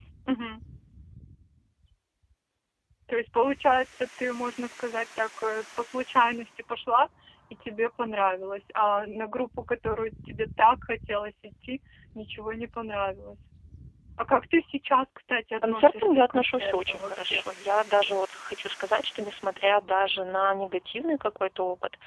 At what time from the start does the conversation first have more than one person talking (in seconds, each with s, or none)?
15.6 s